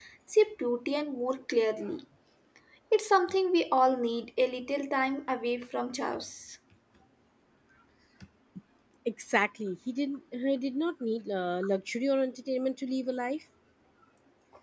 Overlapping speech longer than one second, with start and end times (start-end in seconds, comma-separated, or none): none